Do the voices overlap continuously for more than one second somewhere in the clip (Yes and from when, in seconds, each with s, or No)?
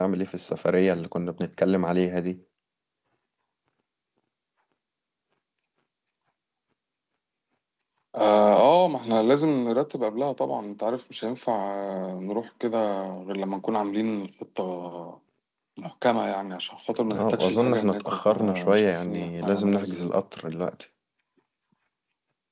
Yes, from 17.1 s